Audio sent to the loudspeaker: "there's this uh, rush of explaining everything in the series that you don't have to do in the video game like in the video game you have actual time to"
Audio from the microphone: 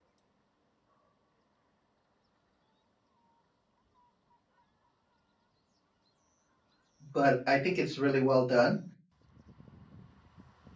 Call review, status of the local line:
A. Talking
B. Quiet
A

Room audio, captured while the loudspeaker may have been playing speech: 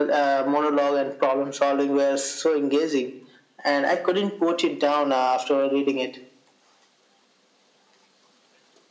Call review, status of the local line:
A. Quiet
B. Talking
A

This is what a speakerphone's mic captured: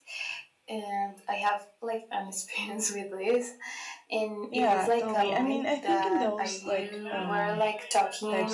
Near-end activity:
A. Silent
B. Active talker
B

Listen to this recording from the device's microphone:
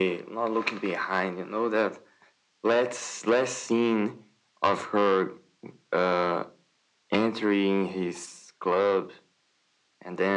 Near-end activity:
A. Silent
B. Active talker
A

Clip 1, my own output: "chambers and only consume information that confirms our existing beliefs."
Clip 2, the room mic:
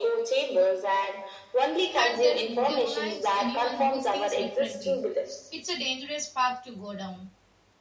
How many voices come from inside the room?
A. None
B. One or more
B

